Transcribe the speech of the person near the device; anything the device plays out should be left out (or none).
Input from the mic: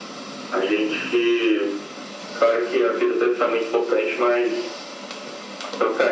none